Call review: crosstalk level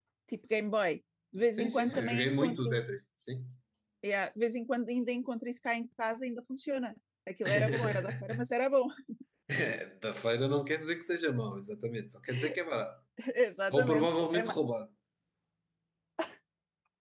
present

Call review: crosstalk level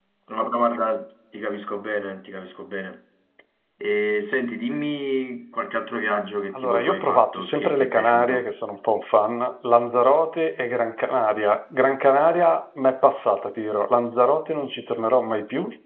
present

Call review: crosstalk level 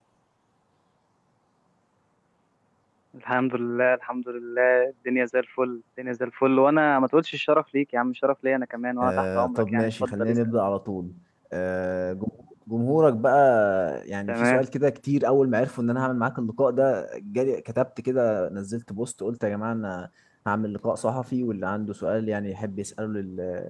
present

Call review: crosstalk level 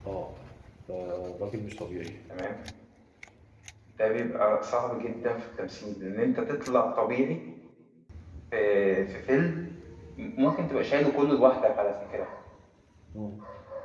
none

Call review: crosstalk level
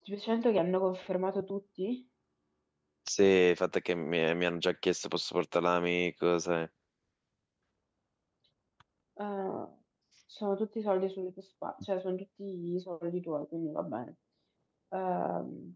none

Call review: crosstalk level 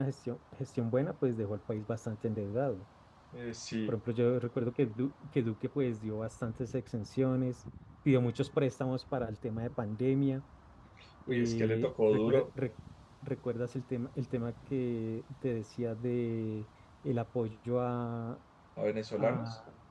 present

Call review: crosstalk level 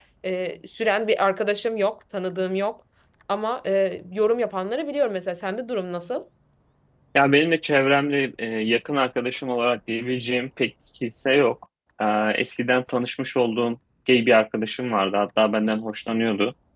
none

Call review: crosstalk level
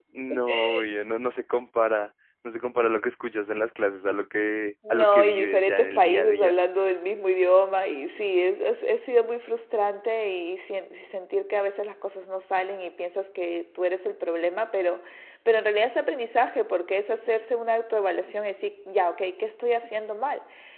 present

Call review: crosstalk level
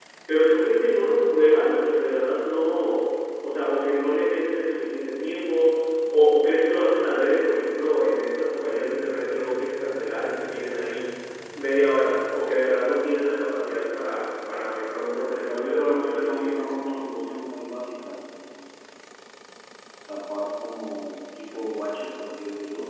present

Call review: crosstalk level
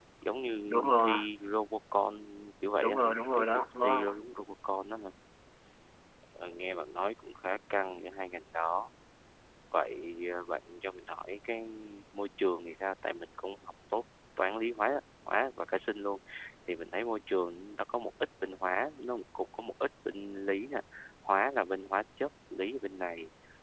present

